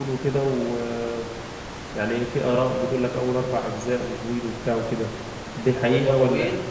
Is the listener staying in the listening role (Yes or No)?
No